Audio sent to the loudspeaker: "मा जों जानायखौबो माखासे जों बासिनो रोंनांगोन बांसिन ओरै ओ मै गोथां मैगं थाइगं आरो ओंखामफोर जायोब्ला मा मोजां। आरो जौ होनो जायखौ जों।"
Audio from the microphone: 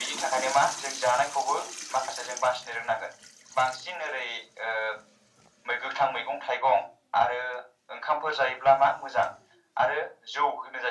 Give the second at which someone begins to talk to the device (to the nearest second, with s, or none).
none